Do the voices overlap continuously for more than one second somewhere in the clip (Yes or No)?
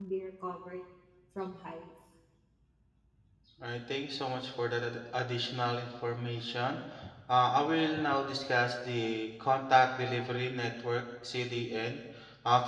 No